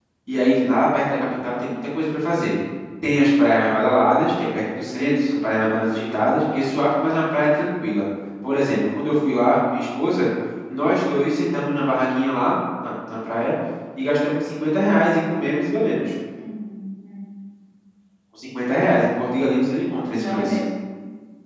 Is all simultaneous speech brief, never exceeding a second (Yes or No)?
Yes